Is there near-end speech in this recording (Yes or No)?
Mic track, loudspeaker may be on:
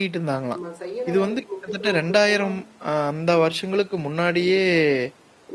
Yes